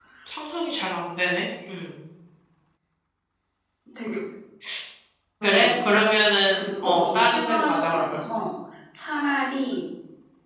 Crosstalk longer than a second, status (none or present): present